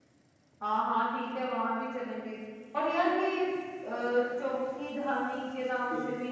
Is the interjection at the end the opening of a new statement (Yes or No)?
Yes